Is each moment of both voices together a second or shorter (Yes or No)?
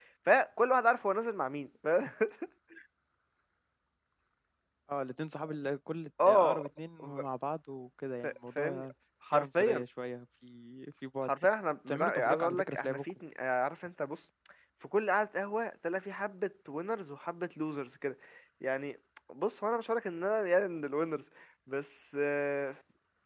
No